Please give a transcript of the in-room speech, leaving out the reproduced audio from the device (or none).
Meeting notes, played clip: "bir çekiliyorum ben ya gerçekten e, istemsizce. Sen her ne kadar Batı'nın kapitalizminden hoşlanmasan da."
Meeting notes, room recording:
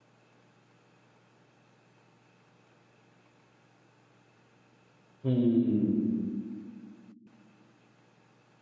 Hmm.